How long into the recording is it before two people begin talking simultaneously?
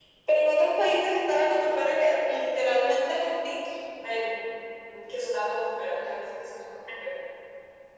none

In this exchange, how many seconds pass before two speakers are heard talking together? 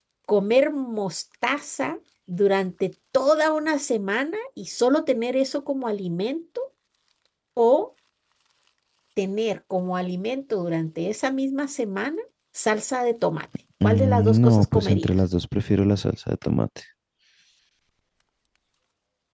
13.8 s

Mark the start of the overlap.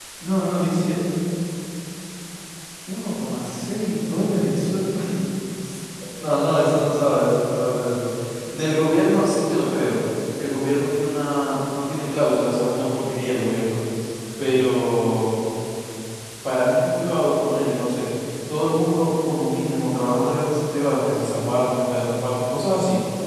none

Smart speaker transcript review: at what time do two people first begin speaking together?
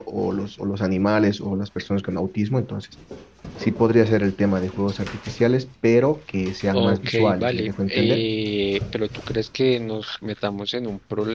6.7 s

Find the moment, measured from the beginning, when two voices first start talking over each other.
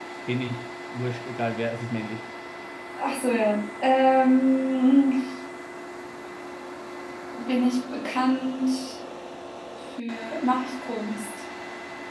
none

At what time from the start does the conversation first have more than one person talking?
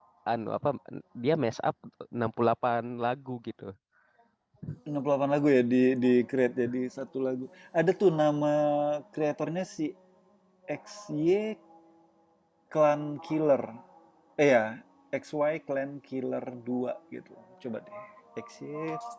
none

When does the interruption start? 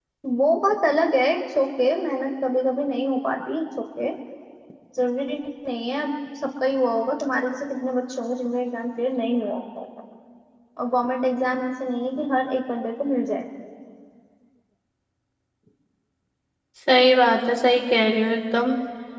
none

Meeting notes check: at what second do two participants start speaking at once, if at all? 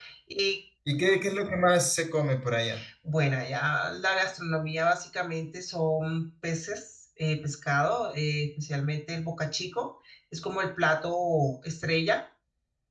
none

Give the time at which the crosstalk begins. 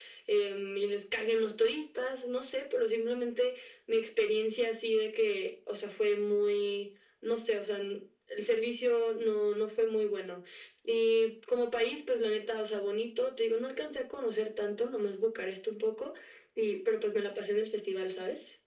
none

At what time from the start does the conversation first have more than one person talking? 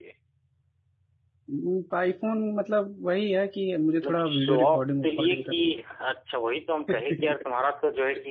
4.0 s

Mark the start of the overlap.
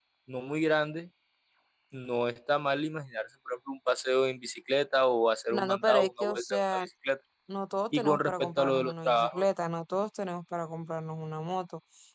5.5 s

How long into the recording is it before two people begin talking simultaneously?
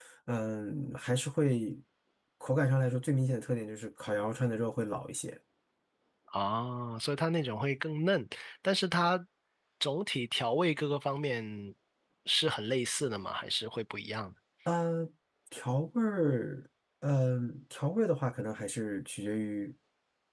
none

